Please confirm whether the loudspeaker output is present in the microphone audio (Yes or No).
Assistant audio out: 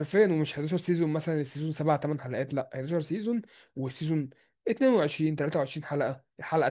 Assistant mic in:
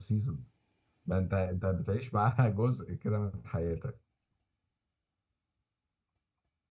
No